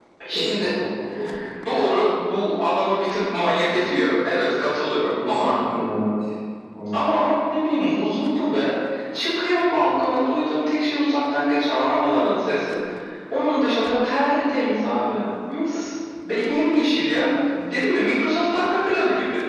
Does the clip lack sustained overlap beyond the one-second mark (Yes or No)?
Yes